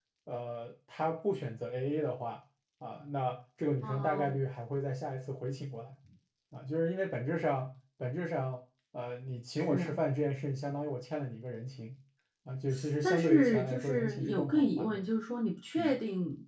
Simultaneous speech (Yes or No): Yes